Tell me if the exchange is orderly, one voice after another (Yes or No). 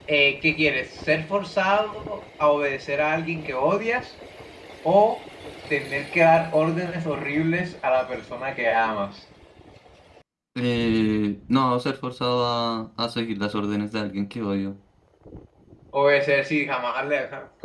Yes